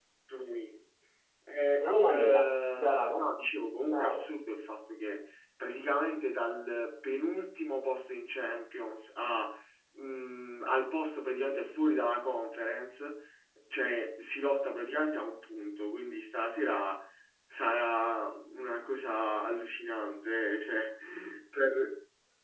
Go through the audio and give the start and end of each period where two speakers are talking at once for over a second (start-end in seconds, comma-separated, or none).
1.8-3.3